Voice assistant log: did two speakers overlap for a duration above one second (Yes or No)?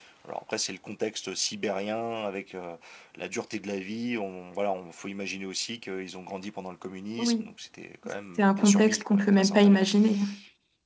Yes